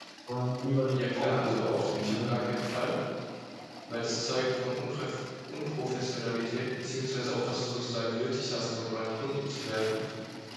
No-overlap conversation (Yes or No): No